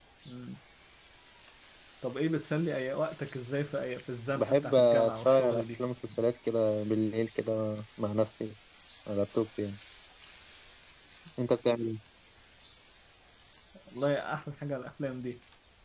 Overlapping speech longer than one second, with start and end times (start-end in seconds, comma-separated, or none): 4.3-5.8